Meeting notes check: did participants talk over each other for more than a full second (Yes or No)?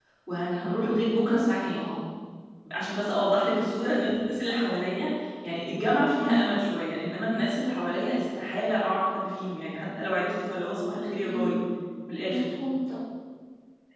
No